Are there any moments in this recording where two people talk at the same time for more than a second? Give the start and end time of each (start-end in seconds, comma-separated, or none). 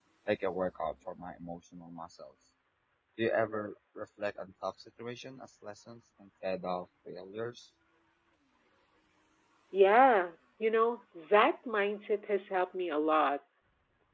none